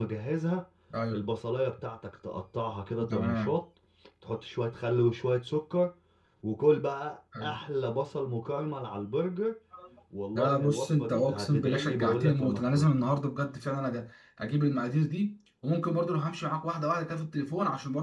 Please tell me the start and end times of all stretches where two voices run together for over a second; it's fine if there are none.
10.3-12.9

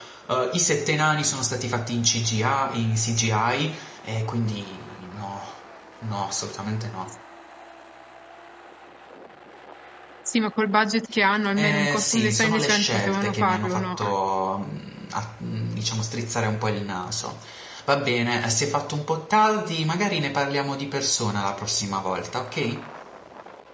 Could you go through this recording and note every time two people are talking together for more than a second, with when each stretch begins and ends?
11.6-13.9

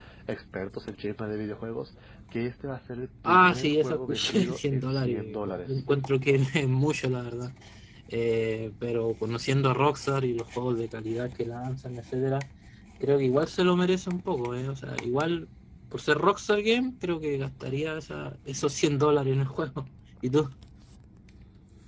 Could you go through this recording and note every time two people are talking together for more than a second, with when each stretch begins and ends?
3.2-5.8

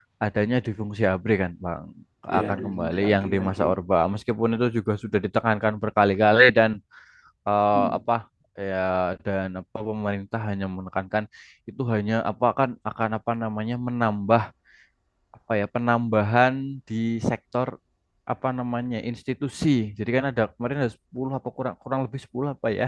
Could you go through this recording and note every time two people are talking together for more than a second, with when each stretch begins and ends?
2.4-3.6

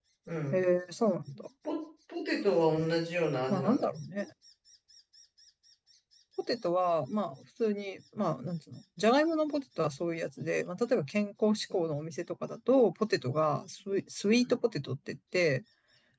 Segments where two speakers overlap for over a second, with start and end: none

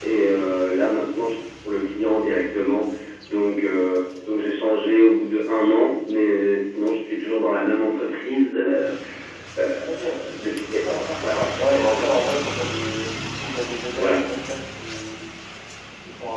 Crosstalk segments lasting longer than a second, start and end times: 10.8-12.2

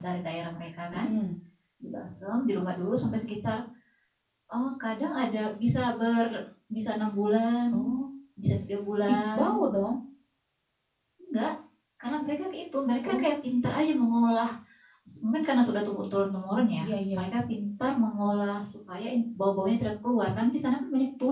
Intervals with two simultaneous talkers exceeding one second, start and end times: none

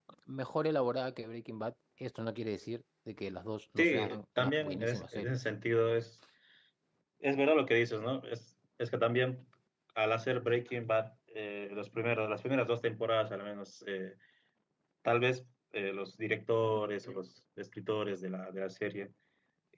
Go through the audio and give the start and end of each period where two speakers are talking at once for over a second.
3.8-5.4

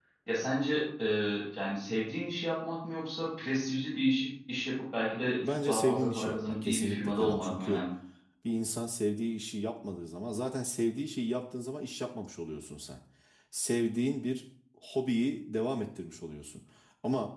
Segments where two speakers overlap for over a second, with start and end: 5.4-7.8

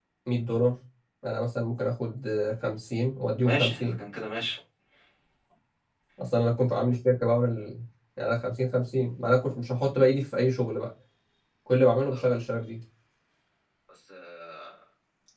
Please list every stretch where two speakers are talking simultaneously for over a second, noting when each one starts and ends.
none

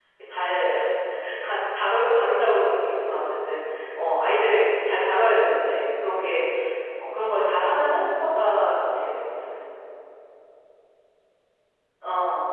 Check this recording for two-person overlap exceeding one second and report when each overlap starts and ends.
none

